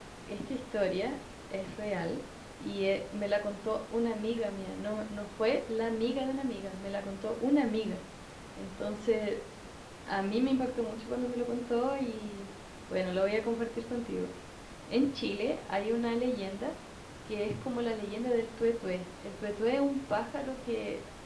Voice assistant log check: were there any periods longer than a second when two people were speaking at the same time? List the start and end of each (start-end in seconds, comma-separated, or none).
none